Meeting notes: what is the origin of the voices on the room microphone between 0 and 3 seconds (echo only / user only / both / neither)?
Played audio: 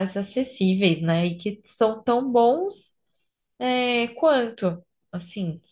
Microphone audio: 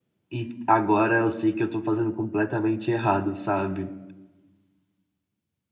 user only